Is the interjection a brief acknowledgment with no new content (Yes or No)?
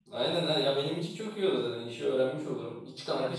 Yes